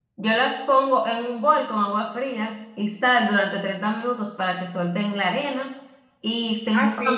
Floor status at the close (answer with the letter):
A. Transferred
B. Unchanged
A